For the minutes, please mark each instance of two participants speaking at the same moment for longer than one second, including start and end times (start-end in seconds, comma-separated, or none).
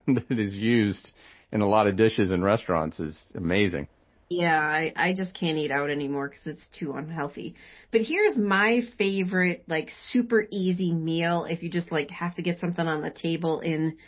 none